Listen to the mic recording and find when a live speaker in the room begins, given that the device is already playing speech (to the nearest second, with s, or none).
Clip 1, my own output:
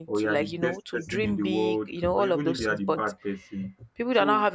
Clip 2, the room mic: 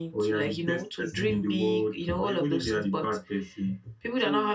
none